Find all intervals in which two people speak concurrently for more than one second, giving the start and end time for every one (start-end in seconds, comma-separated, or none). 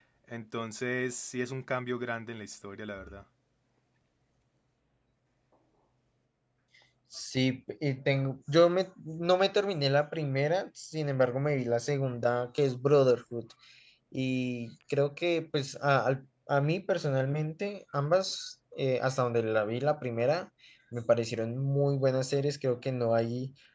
none